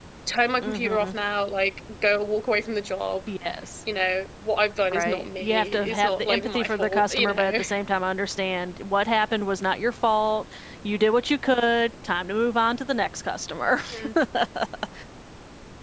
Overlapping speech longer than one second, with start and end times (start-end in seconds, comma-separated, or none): 4.9-7.6